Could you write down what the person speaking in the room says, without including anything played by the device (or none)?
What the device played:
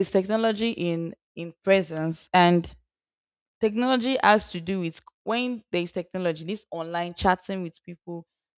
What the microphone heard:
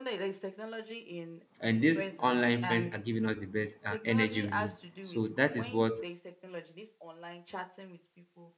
And these online friends are giving us the best uh, energy we need. So that is what